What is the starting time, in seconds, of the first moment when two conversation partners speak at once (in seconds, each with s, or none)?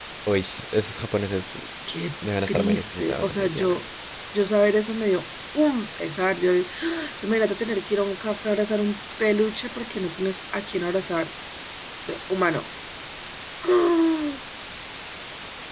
2.5 s